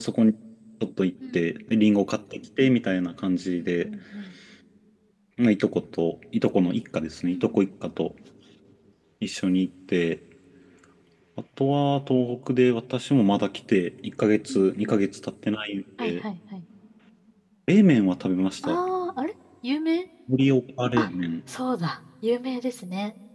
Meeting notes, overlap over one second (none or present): none